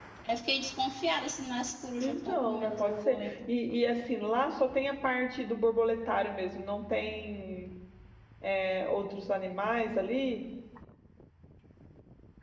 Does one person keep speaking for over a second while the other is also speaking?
Yes, from 2.0 s

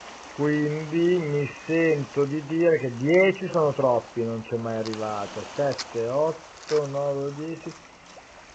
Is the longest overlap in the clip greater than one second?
No

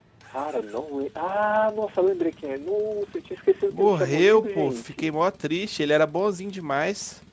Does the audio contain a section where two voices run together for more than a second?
Yes, from 3.7 s

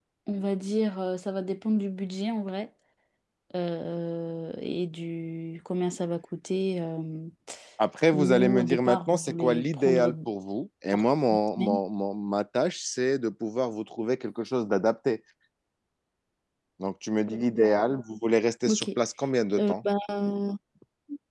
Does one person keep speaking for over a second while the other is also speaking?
Yes, from 8.1 s

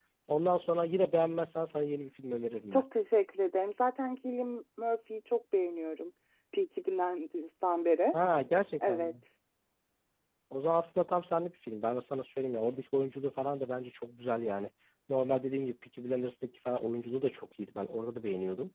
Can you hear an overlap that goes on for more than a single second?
No

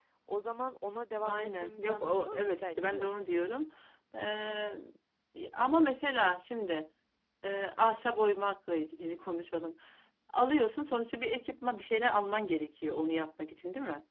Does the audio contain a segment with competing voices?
Yes, from 1.2 s

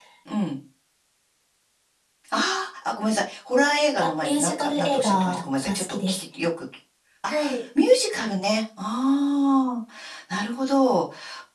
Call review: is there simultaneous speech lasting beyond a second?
Yes, from 4.0 s

